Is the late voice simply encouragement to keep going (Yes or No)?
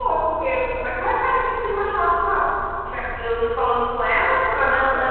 Yes